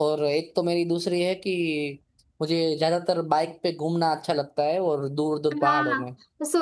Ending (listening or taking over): taking over